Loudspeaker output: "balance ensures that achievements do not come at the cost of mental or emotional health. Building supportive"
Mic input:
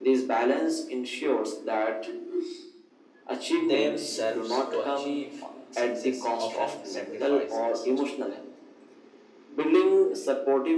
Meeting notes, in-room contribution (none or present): present